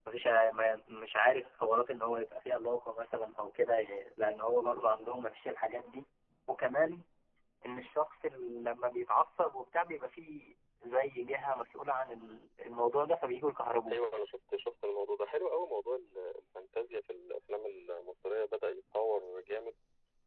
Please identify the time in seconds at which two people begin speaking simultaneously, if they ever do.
none

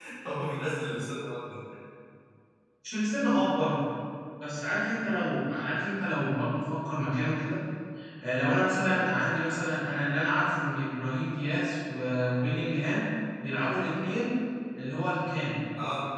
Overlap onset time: none

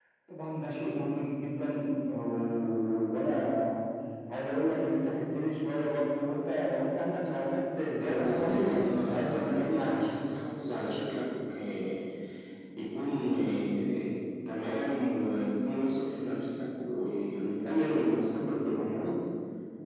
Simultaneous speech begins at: 8 s

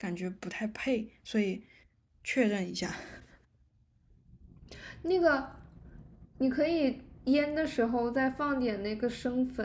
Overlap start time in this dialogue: none

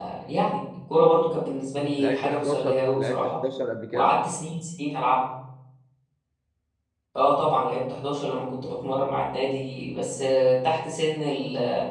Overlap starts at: 2 s

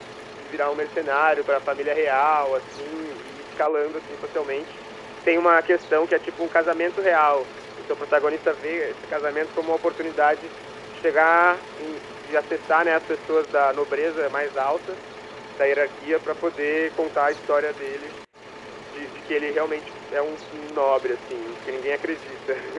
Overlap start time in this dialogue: none

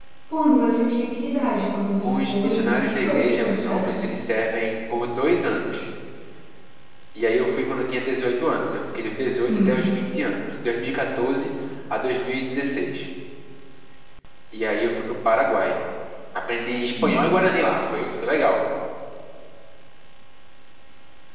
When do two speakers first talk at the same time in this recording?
2 s

